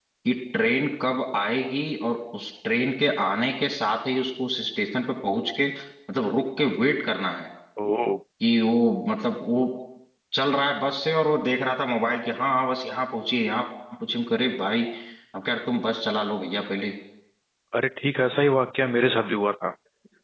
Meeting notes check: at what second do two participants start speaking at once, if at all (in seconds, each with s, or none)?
none